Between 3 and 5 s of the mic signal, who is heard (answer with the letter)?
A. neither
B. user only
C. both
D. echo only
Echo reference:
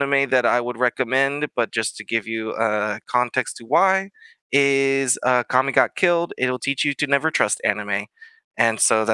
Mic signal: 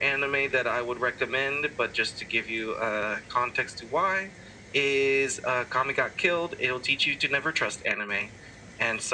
D